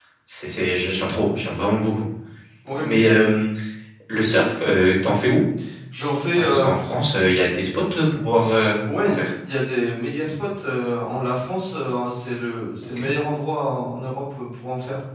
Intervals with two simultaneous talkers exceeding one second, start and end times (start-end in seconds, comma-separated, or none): none